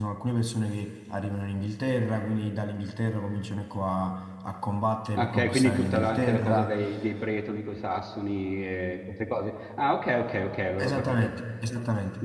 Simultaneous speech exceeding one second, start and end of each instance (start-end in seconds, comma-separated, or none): 5.2-6.7